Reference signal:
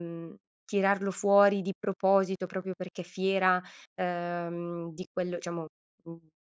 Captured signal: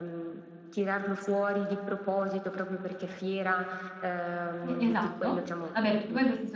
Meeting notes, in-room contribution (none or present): present